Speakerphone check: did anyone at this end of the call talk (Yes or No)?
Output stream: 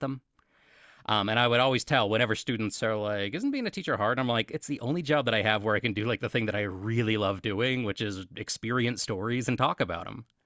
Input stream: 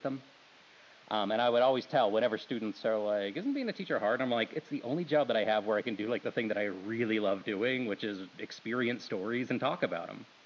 No